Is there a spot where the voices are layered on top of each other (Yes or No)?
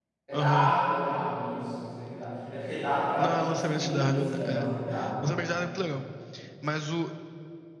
Yes